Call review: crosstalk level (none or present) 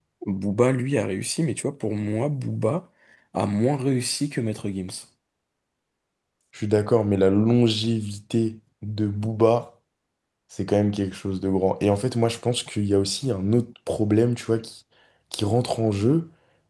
none